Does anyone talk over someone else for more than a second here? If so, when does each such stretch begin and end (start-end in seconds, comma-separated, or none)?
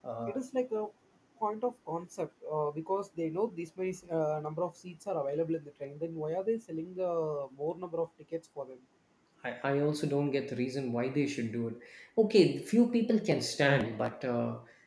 none